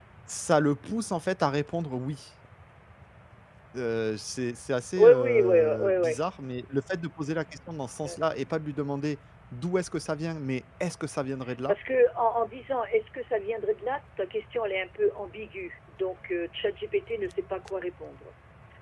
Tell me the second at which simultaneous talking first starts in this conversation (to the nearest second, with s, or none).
5 s